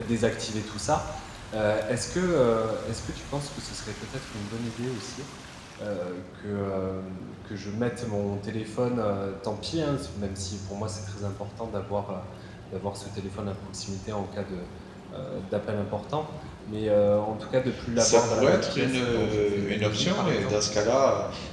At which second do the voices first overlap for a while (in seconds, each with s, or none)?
18.0 s